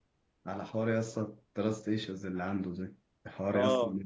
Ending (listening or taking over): listening